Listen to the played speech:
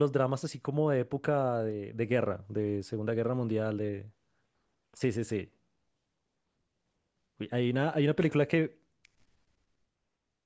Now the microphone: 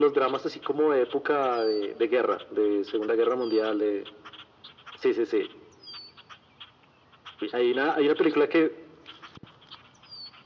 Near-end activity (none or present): none